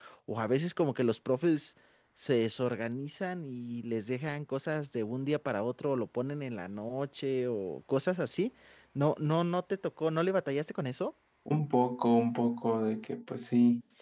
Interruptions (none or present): none